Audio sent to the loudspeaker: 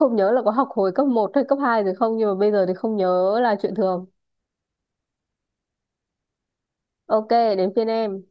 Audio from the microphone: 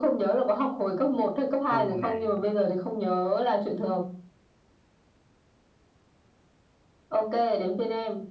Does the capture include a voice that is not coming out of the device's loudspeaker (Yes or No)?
Yes